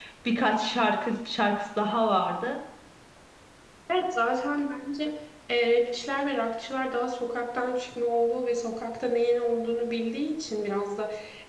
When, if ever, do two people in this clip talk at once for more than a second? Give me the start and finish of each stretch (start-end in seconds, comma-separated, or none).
none